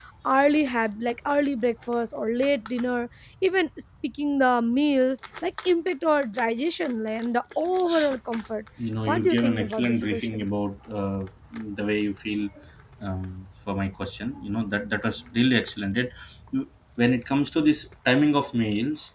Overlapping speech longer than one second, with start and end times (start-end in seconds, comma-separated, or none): 9.1-10.4